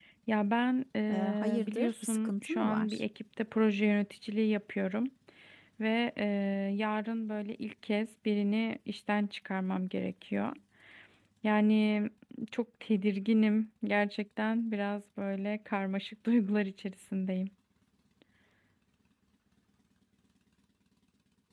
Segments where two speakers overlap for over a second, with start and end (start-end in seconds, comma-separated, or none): 1.1-3.0